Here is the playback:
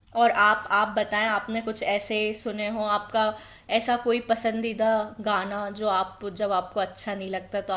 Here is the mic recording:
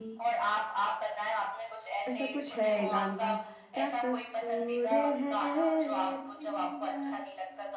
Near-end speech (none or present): present